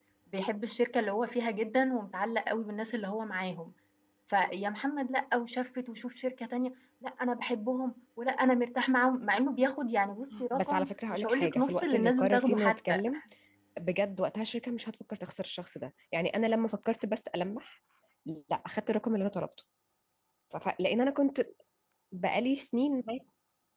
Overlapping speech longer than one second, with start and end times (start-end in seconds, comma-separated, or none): 10.5-13.0